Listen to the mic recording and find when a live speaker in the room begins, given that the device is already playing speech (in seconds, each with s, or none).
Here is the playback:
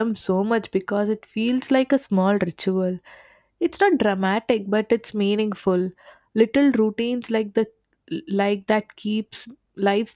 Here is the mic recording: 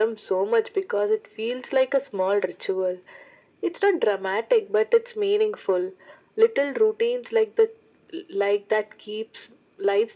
none